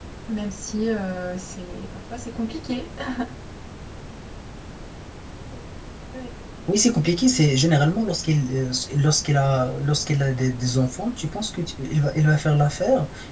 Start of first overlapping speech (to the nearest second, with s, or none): none